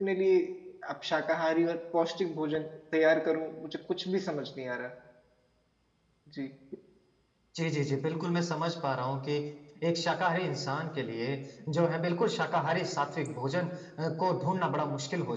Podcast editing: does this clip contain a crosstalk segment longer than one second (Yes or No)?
No